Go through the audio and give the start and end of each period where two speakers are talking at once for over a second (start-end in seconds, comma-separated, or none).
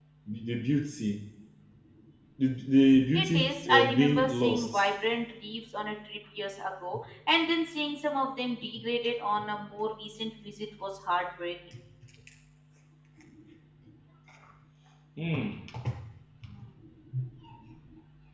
3.1-4.8